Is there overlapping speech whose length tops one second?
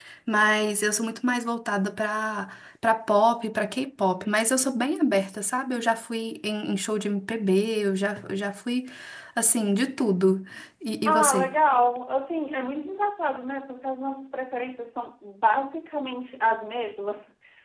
No

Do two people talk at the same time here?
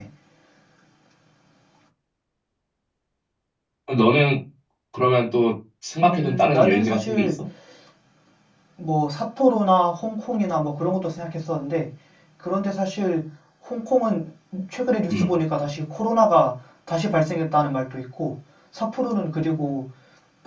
Yes, from 6.0 s

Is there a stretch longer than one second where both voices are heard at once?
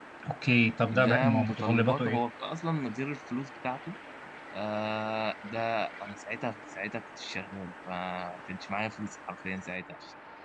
Yes, from 0.9 s

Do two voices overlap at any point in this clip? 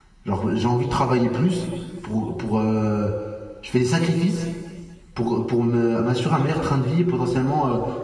No

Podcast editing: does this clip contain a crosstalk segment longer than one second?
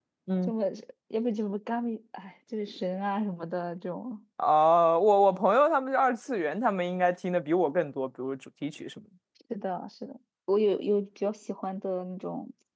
No

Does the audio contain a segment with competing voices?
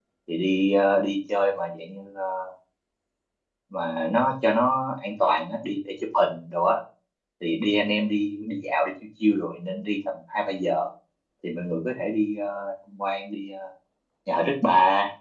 No

